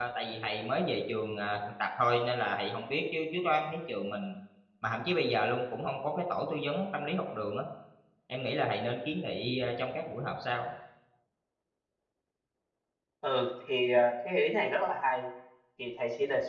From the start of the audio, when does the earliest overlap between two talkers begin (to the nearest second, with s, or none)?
none